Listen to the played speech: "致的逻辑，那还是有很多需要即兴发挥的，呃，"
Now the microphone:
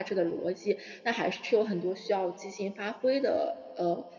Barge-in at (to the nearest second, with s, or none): none